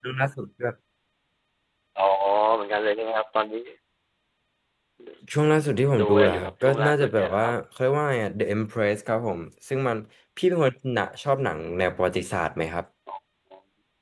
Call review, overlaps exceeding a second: present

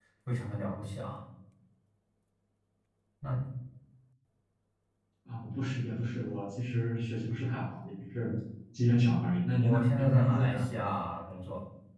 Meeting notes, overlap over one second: present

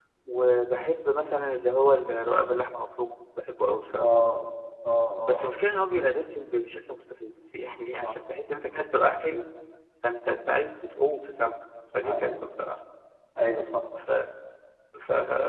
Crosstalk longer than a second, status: none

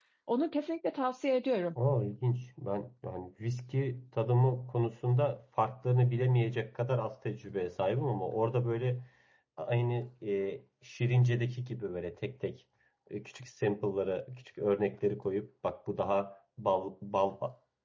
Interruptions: none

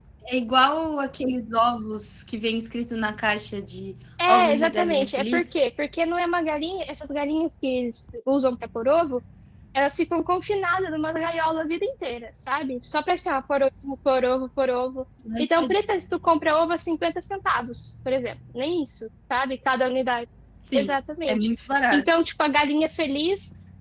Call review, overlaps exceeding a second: present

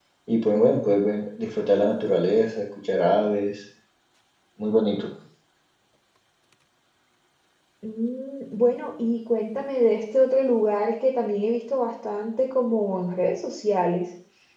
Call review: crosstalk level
none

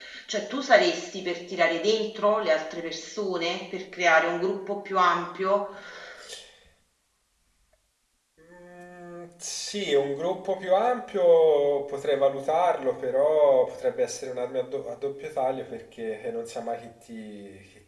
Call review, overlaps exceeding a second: none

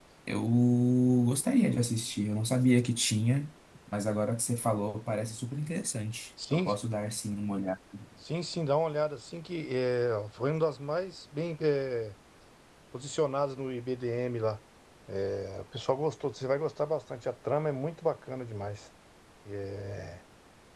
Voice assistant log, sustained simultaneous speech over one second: none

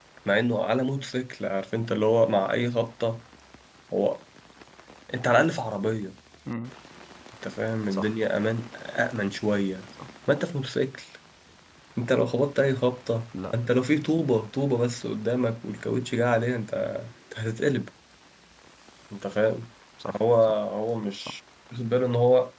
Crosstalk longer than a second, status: none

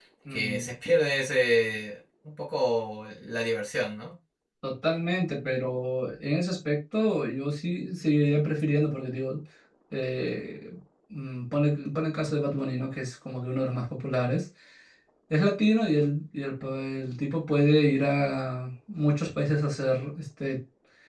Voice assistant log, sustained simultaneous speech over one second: none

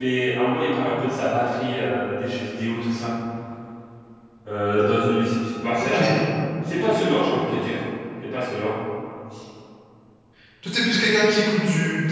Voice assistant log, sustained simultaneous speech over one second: none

